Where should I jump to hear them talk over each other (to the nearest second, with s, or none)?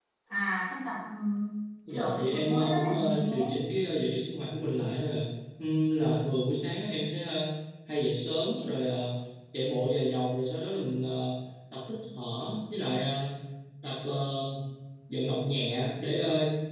2 s